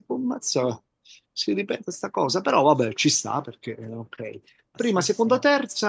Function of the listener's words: listening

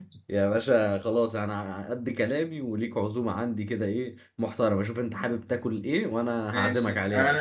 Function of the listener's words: taking over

